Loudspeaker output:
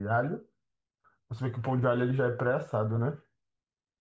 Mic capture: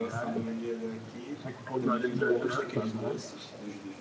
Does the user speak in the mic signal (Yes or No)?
Yes